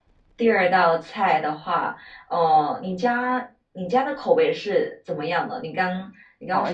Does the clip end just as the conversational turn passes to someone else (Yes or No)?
Yes